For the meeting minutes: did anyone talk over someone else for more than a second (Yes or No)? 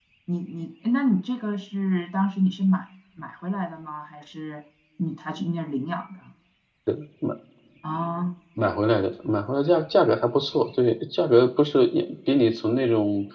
No